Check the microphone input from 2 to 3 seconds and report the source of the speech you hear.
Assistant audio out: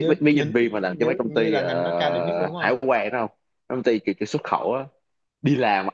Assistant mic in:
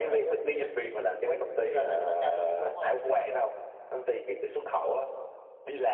echo only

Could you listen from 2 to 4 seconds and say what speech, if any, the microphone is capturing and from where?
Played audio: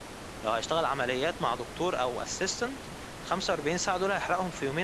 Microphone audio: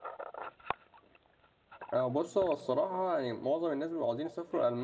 user only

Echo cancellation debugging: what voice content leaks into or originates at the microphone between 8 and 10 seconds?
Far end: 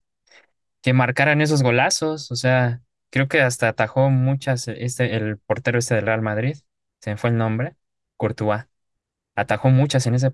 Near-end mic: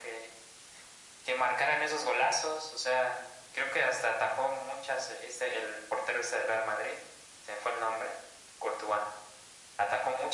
echo only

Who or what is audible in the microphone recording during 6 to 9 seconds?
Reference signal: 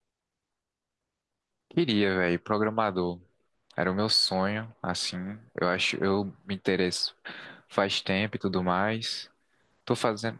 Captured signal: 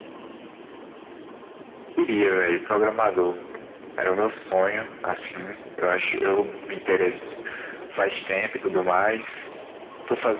echo only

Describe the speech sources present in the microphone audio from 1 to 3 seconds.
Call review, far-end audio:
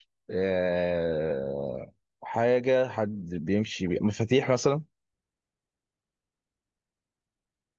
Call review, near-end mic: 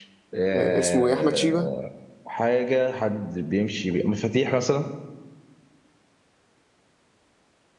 both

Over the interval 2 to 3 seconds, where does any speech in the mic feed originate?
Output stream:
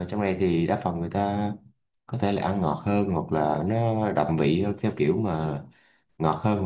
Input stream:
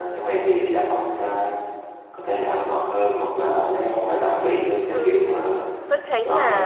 echo only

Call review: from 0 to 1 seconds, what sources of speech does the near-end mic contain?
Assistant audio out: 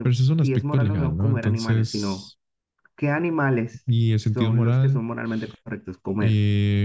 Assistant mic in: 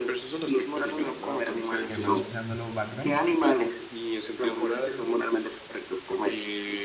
echo only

